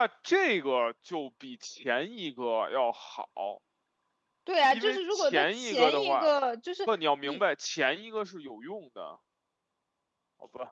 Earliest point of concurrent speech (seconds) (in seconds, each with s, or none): 4.7 s